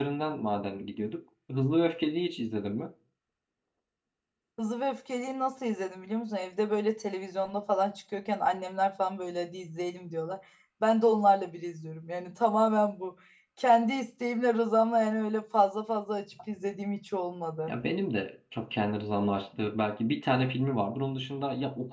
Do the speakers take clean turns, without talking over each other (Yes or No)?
Yes